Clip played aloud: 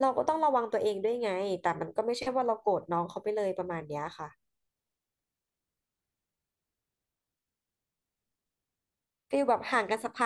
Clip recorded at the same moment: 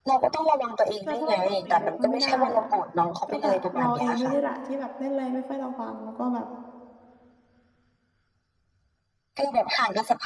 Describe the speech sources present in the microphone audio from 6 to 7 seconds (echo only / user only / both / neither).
user only